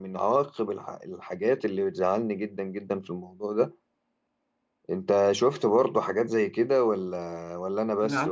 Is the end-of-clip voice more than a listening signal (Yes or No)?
Yes